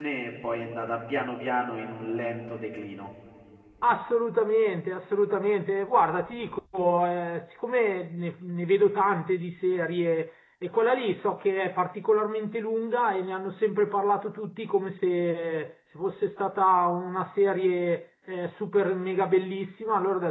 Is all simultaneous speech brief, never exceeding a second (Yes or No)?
Yes